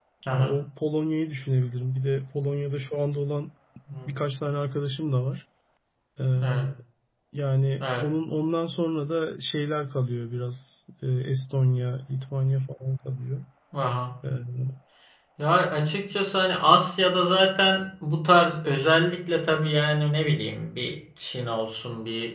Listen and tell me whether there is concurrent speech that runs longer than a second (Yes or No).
No